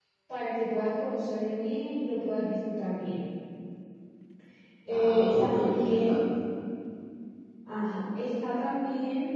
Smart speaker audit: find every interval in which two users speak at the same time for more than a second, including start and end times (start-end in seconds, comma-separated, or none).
4.9-6.2